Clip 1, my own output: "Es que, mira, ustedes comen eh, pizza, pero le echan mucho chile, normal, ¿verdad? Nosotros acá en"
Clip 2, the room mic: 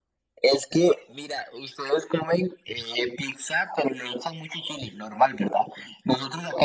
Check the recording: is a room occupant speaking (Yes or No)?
No